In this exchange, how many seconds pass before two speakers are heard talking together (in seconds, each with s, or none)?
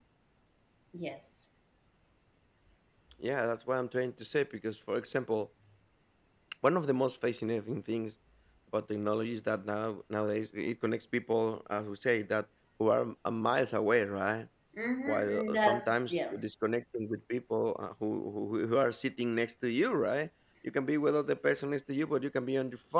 15.1 s